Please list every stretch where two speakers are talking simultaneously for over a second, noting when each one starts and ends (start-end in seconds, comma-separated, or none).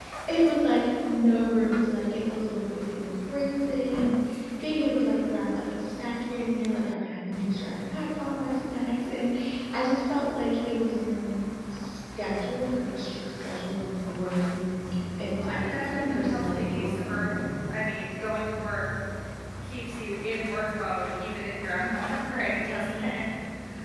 15.3-17.7